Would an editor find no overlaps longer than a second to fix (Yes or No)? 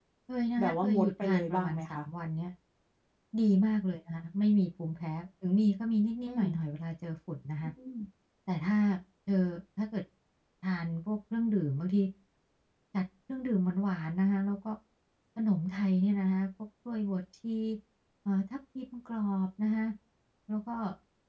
No